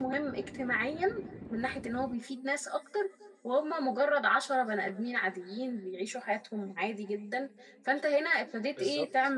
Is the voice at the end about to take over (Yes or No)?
No